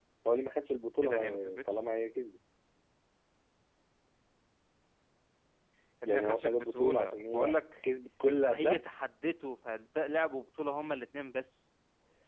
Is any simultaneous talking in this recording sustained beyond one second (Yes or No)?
Yes